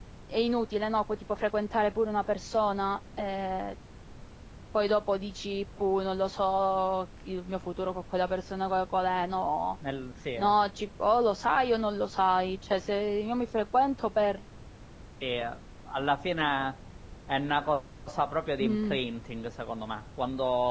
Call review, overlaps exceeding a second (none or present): none